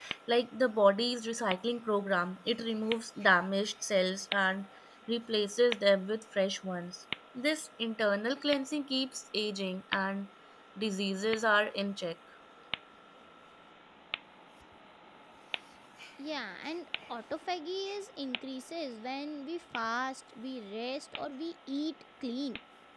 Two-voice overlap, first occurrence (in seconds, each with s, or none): none